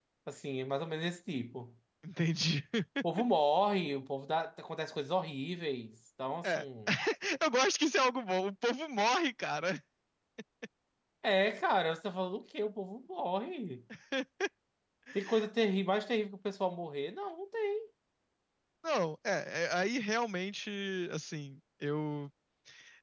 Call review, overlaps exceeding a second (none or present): none